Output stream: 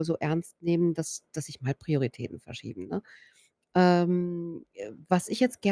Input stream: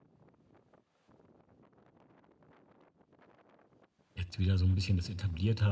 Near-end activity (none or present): present